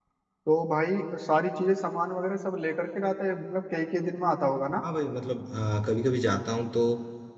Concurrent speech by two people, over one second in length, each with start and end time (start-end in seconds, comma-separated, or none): none